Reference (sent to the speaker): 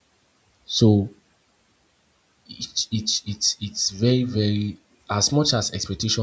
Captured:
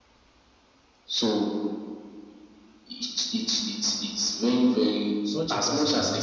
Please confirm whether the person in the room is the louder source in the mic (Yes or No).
No